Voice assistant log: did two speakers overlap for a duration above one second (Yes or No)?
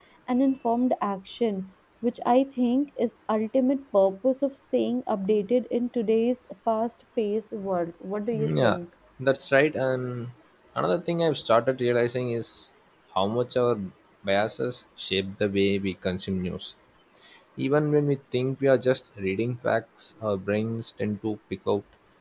No